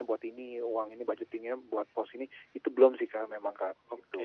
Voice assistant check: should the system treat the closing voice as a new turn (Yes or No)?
Yes